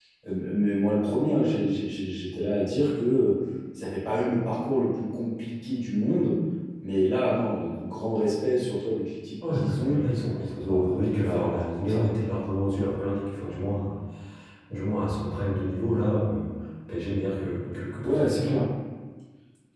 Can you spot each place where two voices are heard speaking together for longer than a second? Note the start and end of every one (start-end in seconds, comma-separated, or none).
10.5-12.1